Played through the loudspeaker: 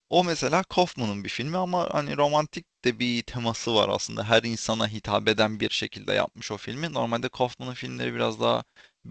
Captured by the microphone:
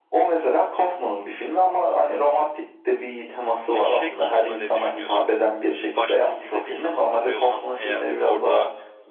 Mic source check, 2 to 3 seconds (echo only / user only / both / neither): echo only